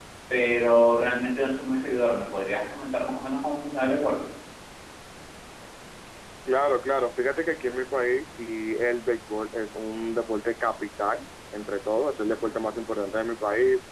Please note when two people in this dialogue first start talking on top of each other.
none

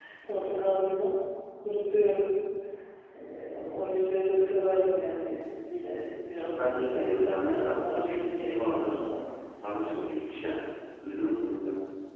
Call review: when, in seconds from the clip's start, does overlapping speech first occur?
6.6 s

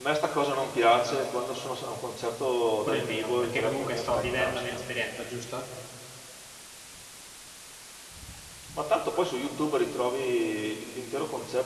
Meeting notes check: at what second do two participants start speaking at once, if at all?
2.9 s

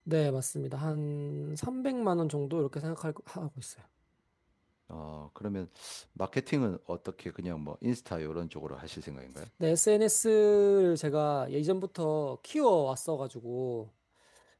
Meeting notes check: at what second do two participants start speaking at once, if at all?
none

